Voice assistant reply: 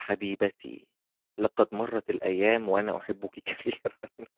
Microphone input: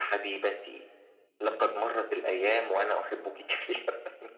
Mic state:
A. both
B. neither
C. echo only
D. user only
C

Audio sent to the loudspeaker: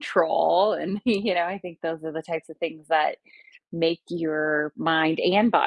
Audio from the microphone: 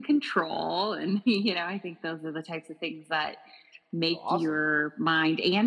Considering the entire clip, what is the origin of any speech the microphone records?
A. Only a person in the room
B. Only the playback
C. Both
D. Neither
C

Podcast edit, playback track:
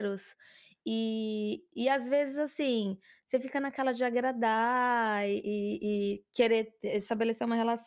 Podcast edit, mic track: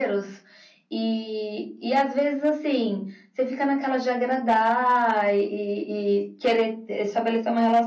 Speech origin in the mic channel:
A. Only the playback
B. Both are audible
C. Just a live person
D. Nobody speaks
A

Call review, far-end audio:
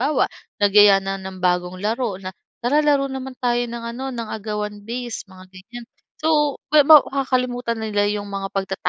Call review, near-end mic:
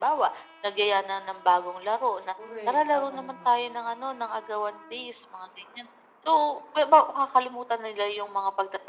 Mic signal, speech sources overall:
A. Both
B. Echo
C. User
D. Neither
A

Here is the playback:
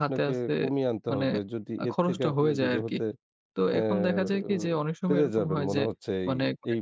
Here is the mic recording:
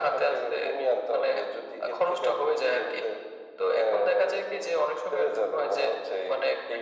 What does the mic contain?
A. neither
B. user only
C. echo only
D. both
C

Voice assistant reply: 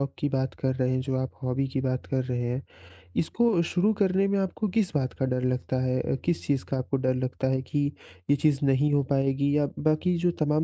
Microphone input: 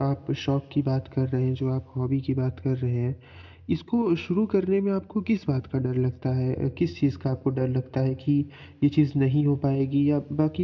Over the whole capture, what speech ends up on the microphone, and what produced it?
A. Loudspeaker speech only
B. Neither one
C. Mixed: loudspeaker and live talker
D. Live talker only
A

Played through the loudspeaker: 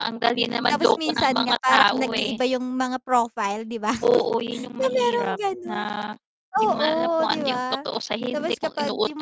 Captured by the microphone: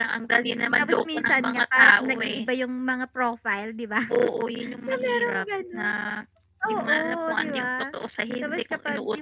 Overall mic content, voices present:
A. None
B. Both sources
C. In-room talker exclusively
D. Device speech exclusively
D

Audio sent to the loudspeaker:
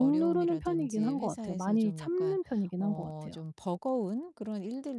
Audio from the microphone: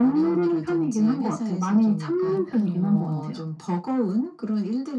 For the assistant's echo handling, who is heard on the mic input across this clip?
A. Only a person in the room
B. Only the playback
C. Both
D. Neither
C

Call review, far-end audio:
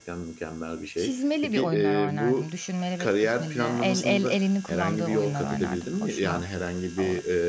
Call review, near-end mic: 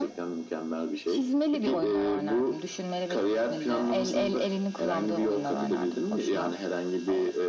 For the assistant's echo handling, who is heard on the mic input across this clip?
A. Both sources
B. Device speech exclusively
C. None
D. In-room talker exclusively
B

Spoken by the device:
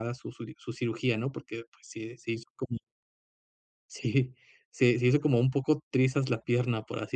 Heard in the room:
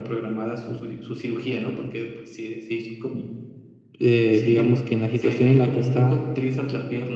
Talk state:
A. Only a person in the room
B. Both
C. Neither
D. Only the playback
B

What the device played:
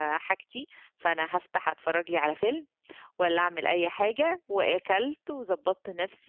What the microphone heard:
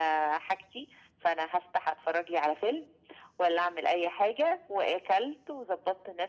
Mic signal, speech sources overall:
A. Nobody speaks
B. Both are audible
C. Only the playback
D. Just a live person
C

